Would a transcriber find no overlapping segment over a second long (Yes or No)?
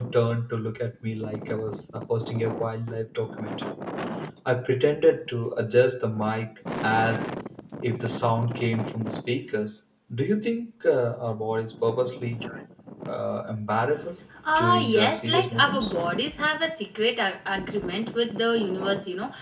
No